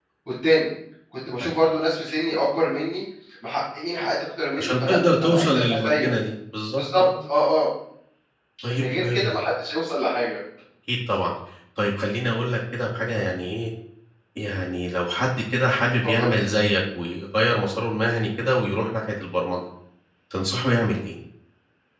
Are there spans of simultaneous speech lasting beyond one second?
Yes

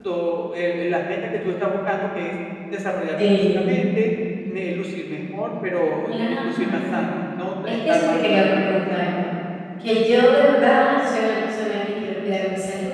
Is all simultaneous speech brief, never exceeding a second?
No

